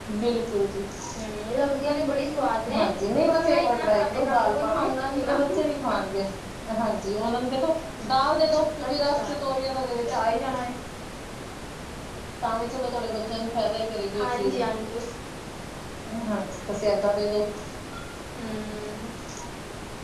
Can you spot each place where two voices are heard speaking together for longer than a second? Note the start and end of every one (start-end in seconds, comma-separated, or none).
3.3-5.4